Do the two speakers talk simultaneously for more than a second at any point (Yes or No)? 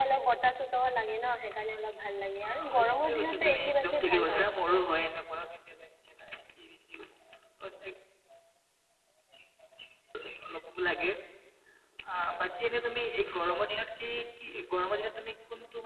Yes